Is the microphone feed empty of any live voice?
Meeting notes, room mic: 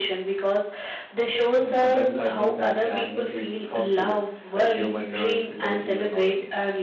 No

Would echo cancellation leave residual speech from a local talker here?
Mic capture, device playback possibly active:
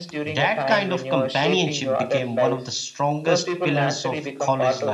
Yes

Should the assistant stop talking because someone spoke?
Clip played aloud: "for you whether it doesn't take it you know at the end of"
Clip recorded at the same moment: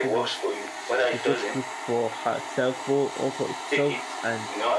Yes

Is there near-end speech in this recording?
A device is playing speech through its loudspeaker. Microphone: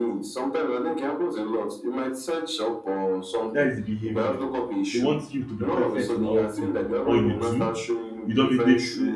Yes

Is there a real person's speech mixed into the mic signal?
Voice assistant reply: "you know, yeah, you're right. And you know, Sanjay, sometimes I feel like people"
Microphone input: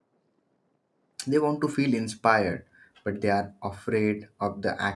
Yes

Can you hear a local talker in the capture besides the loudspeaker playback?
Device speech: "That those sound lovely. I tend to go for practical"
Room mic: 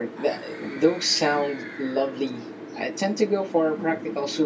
No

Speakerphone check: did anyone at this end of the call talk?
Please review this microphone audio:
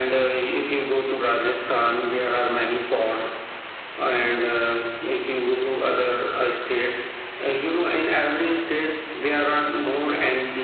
No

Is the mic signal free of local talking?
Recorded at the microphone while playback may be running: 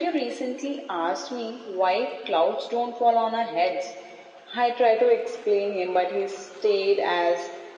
Yes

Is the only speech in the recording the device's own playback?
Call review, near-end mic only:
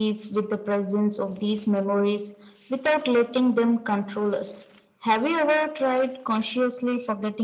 Yes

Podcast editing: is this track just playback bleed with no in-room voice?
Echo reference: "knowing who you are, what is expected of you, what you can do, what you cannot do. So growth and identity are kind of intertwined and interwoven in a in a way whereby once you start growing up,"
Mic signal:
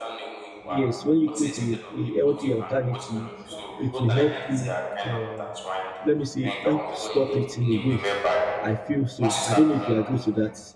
No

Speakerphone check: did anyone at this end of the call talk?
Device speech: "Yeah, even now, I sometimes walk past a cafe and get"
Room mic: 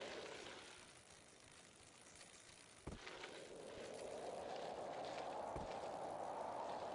No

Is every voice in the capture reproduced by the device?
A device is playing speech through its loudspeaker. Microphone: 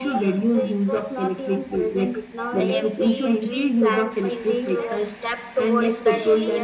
No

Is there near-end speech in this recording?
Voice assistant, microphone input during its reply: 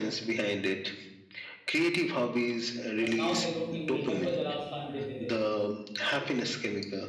Yes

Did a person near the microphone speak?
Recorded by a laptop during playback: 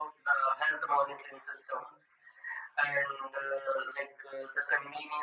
No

